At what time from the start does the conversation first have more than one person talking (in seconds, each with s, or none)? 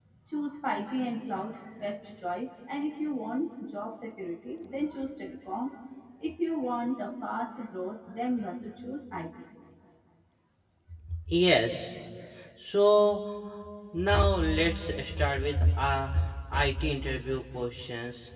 none